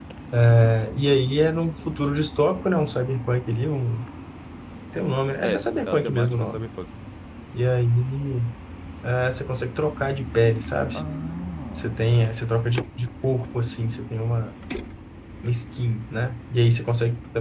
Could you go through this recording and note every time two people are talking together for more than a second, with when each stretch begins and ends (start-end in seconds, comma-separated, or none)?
5.4-6.6